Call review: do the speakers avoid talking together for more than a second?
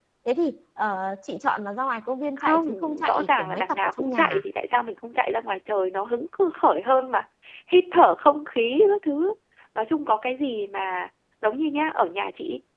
No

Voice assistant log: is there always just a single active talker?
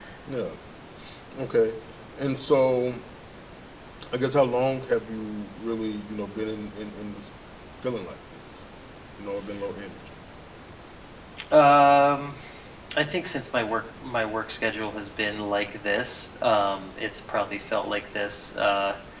Yes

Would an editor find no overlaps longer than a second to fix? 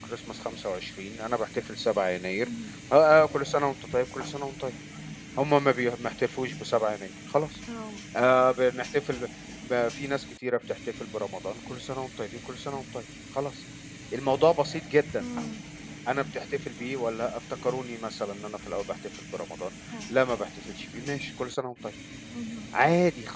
Yes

